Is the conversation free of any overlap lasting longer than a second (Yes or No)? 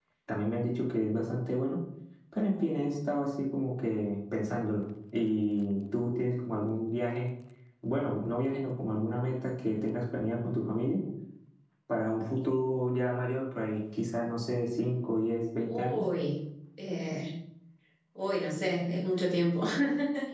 Yes